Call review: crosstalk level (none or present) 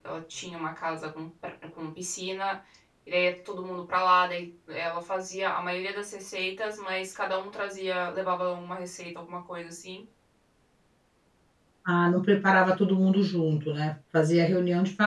none